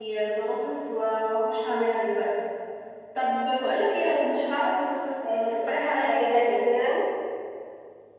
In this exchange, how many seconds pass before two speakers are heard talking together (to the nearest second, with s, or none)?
5 s